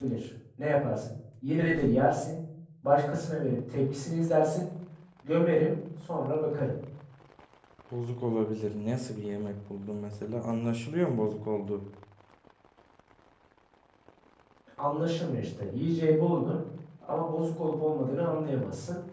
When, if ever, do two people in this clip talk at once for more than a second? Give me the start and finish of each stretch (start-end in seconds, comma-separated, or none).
none